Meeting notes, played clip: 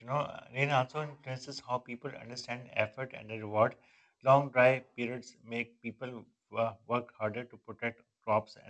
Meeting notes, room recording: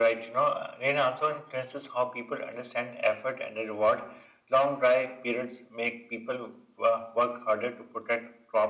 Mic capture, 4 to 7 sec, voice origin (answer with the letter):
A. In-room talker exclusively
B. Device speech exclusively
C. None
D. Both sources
B